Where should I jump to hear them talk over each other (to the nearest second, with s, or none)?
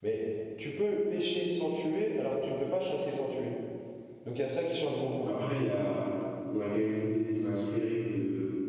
none